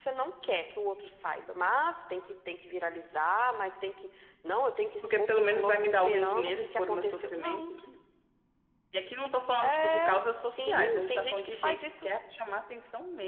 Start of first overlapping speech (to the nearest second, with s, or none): 5 s